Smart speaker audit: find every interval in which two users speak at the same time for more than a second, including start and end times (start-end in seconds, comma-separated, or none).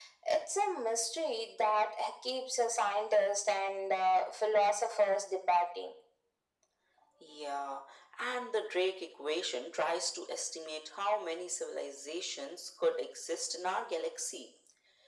none